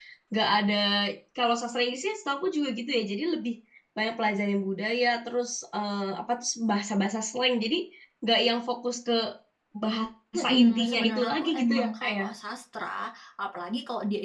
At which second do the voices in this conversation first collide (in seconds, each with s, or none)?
10.3 s